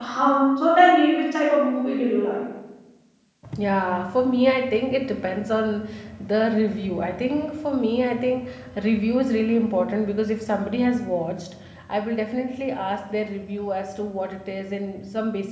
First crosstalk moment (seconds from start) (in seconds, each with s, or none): none